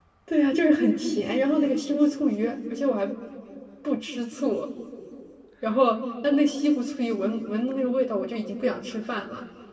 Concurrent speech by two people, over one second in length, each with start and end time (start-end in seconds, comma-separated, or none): none